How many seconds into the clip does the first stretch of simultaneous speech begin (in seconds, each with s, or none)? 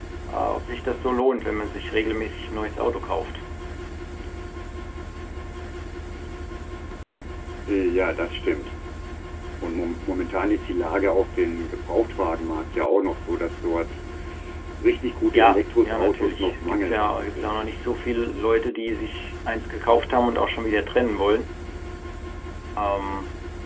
15.3 s